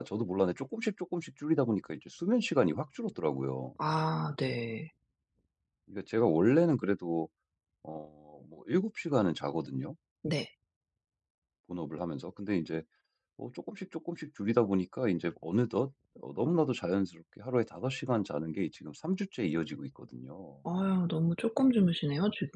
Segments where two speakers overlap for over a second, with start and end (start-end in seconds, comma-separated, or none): none